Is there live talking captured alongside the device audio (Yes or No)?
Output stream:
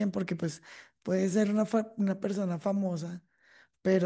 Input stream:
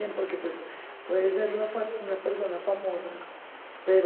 No